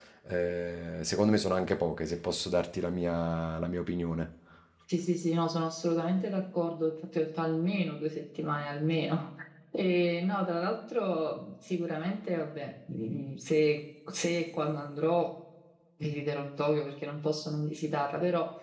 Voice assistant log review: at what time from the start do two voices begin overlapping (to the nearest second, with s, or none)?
none